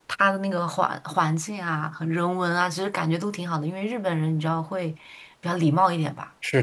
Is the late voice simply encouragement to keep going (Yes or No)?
No